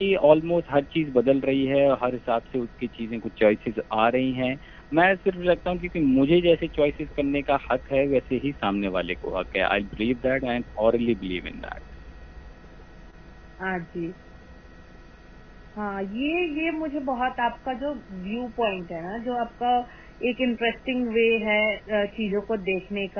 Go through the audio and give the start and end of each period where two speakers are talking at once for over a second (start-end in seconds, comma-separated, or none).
none